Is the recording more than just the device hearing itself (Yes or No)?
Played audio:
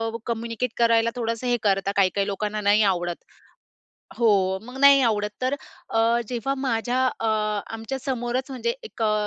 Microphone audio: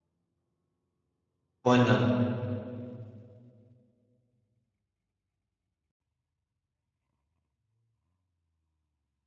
Yes